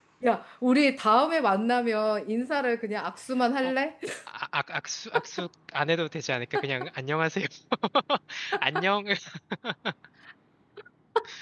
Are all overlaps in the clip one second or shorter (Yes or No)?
Yes